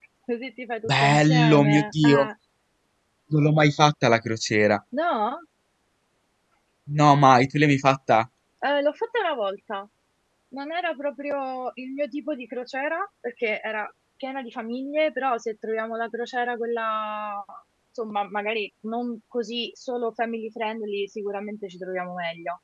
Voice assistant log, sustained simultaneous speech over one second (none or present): present